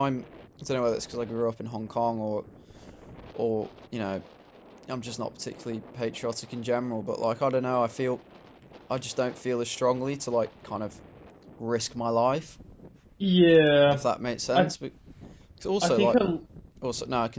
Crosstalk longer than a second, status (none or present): none